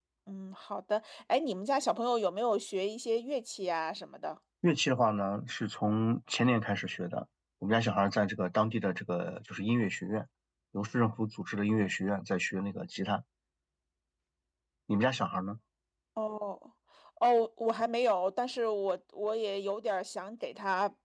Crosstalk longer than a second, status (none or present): none